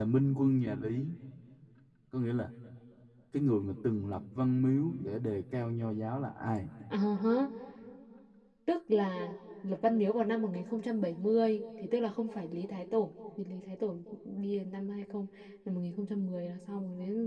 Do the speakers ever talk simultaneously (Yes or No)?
No